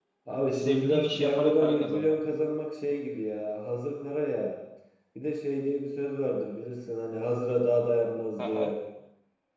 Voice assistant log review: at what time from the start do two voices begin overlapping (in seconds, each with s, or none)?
0.5 s